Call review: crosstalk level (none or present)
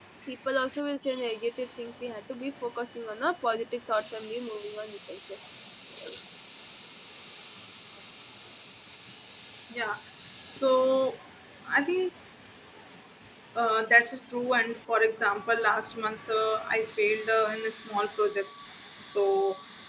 none